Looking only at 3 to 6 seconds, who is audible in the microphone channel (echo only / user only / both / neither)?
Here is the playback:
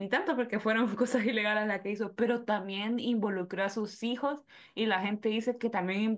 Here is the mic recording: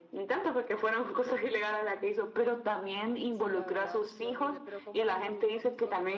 both